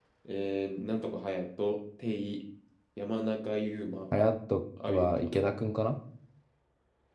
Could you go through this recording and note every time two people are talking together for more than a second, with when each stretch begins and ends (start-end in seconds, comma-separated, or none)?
none